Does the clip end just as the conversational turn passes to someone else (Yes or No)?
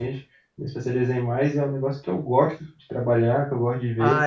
Yes